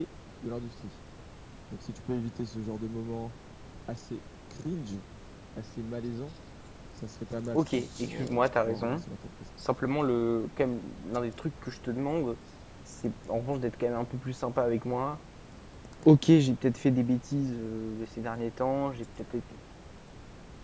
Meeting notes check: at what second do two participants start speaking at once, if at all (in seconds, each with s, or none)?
7.5 s